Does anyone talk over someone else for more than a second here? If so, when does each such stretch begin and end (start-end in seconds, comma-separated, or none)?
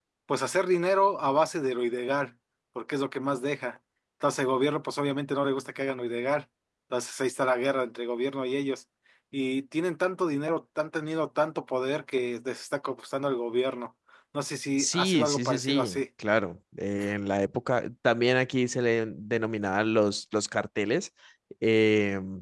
14.8-16.0